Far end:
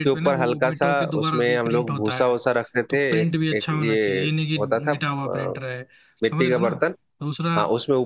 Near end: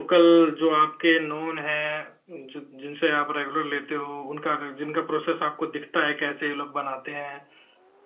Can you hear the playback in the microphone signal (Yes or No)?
No